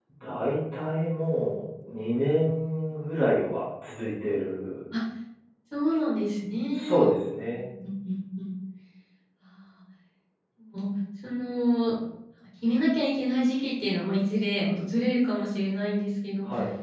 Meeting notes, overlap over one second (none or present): none